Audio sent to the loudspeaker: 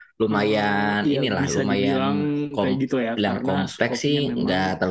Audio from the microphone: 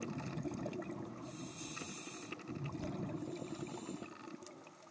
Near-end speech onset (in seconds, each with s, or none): none